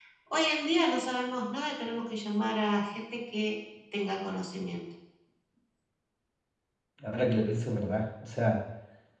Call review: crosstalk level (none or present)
none